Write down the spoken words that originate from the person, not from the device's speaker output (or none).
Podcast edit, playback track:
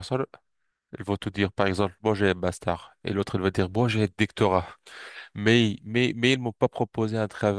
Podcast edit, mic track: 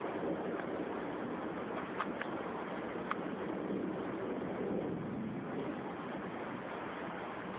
none